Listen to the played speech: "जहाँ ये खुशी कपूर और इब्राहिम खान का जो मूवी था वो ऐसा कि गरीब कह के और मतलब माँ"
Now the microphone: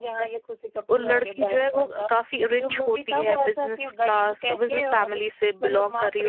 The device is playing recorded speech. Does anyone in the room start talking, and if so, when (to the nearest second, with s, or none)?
1 s